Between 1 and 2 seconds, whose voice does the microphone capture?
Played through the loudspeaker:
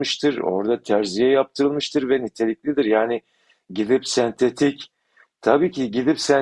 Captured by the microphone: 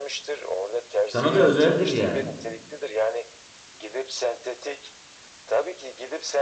both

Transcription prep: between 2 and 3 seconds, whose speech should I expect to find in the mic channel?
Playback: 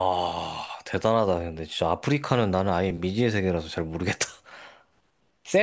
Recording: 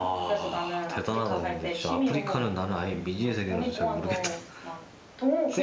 both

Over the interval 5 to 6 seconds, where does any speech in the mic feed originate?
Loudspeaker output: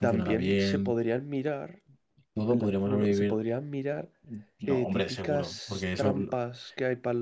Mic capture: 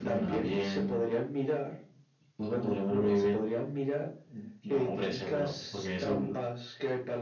echo only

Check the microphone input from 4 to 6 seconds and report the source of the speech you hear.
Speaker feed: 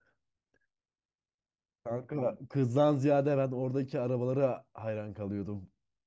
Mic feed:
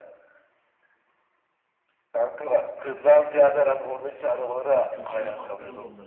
both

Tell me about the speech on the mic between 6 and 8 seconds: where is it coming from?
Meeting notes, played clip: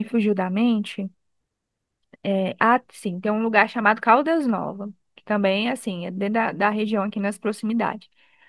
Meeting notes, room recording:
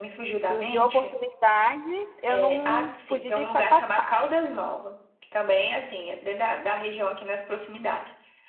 echo only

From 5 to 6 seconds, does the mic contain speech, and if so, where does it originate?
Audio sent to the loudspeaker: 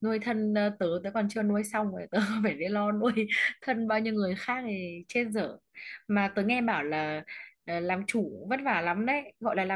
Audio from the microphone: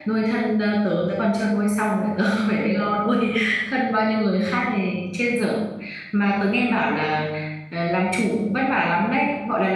echo only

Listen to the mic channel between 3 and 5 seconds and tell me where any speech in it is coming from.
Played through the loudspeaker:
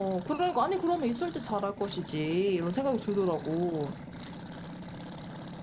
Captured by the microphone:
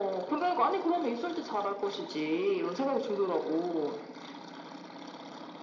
echo only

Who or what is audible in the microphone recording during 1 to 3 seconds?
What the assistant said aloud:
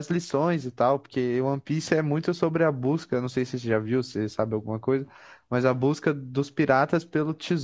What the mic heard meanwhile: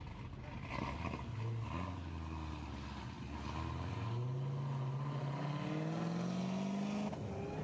neither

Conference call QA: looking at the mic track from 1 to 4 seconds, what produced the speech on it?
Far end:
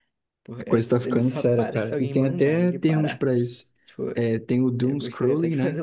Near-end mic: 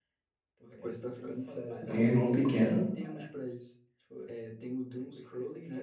both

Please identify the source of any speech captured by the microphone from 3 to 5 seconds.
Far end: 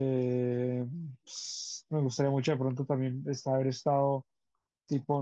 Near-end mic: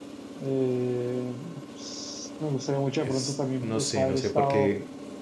both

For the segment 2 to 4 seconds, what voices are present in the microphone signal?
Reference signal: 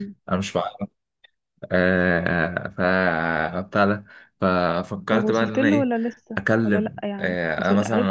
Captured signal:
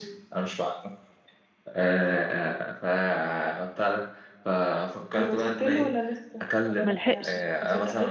echo only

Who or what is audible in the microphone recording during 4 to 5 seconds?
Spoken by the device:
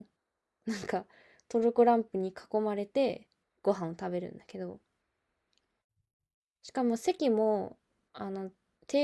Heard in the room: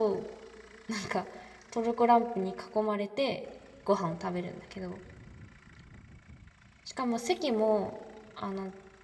echo only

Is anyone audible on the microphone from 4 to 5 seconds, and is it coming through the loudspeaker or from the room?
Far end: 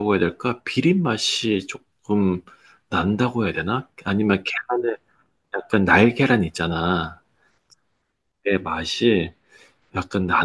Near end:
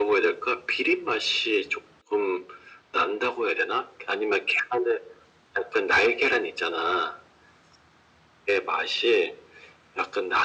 echo only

